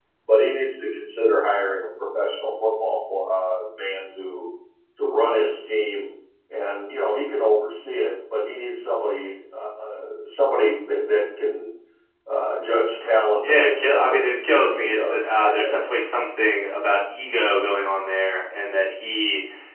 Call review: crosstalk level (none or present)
present